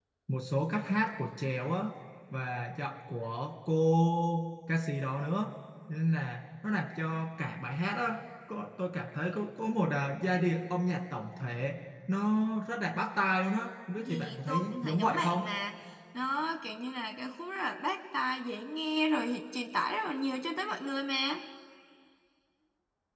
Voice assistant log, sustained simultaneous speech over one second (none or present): present